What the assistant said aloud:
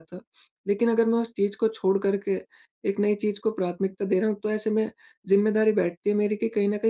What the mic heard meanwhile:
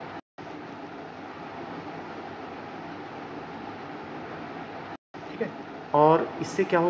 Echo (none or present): none